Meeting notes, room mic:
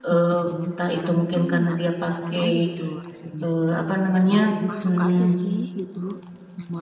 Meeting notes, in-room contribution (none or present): present